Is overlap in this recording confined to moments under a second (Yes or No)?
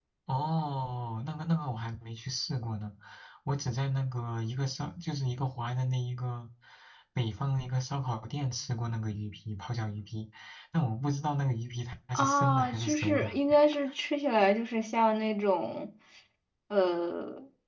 No